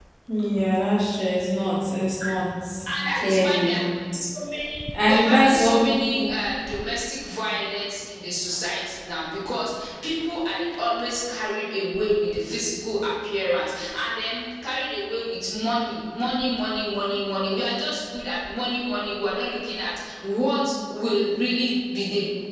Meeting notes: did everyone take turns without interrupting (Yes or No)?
No